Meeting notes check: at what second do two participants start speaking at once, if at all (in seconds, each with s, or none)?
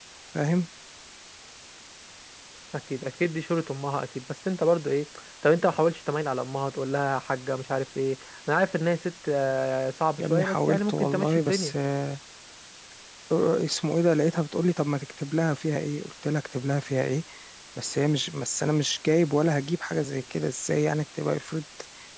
10.2 s